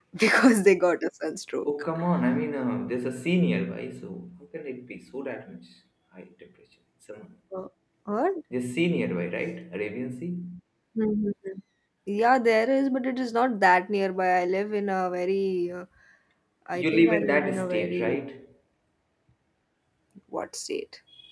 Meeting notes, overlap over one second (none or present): present